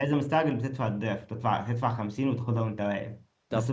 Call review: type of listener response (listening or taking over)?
listening